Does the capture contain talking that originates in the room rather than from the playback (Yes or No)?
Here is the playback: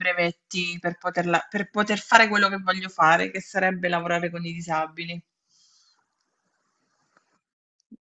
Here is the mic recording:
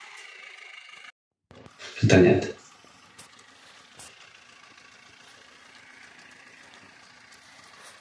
Yes